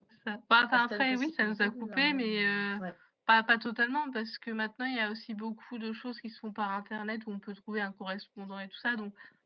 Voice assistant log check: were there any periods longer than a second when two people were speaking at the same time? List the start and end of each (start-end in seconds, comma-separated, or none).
0.7-2.7